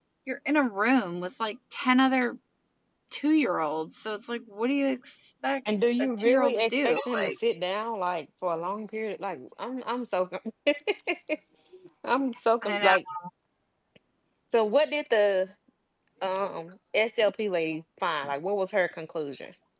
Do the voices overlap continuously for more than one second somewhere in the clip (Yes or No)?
Yes